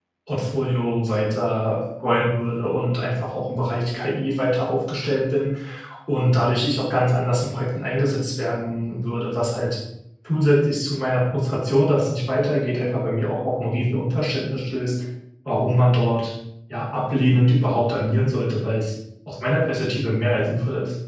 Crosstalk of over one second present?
No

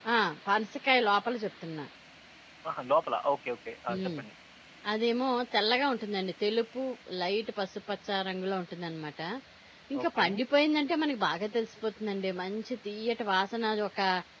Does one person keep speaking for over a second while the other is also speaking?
No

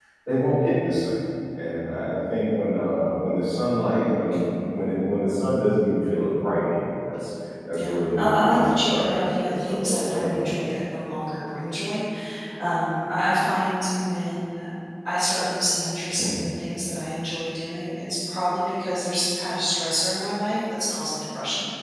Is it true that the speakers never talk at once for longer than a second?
No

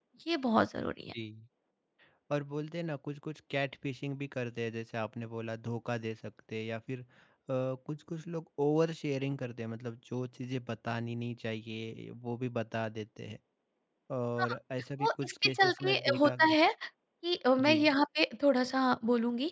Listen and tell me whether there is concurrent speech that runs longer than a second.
Yes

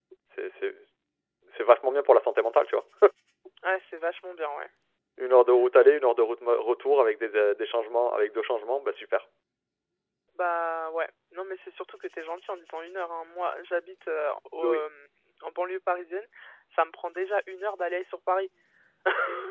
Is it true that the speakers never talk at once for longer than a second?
Yes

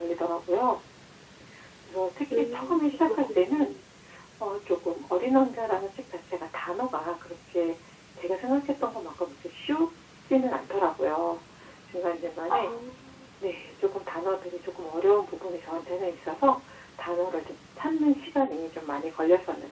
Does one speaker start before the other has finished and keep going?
Yes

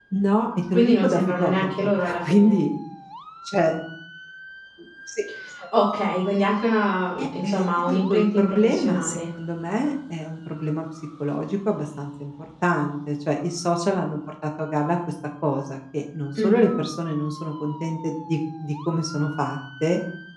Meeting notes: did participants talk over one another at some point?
Yes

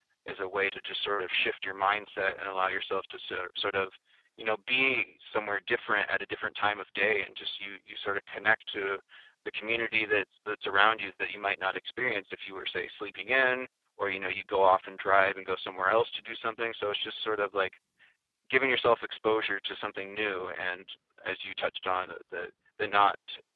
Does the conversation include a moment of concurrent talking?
No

